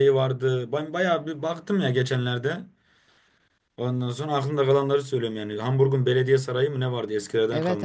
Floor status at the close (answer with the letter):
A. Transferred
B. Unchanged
A